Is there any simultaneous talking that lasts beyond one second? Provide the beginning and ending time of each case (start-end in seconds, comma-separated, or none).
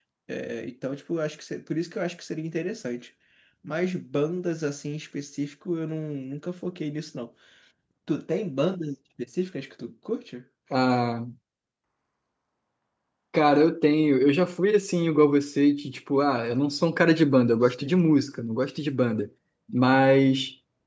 none